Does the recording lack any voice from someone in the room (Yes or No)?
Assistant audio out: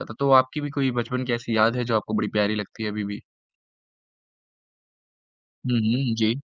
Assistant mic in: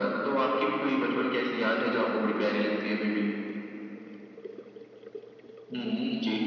Yes